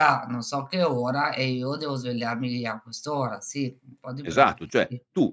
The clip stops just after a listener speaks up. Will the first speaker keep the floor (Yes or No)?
No